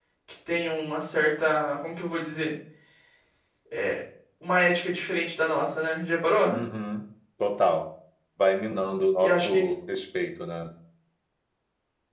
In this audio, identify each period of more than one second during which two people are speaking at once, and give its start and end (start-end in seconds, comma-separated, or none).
none